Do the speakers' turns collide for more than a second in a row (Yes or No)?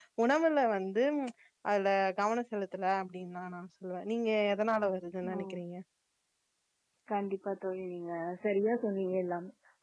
No